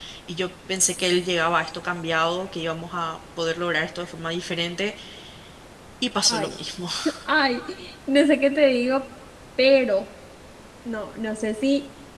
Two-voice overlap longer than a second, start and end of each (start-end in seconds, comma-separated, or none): none